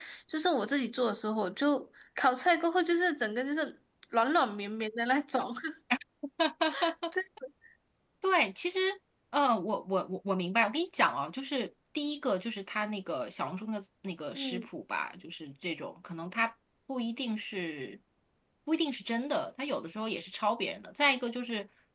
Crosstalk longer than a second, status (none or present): none